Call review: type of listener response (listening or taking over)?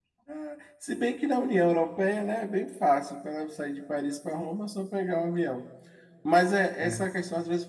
listening